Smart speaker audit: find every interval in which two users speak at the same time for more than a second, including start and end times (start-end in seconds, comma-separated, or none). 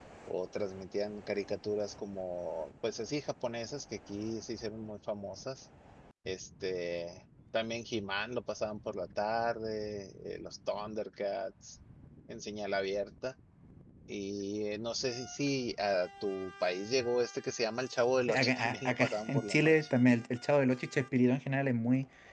18.4-19.7